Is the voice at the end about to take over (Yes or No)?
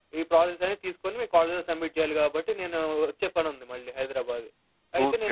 Yes